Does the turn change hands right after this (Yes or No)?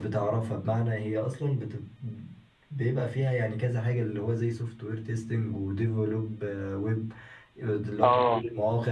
No